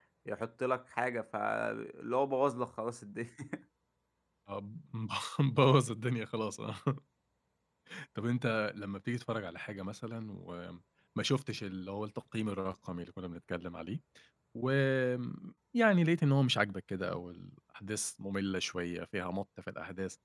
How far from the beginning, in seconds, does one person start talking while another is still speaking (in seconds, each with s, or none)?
none